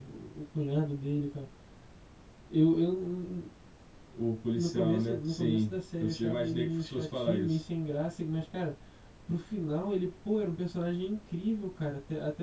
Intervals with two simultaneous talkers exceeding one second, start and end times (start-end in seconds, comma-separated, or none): 4.5-7.6